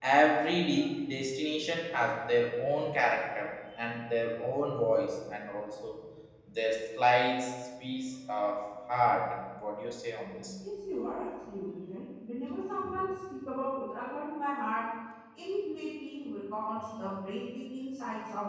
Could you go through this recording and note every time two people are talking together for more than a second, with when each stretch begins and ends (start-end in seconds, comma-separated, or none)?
none